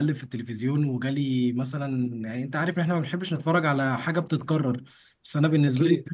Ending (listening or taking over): listening